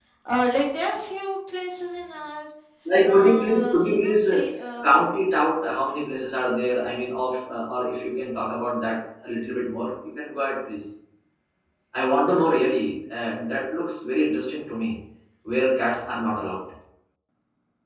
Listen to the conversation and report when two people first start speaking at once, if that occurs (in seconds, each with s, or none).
3.0 s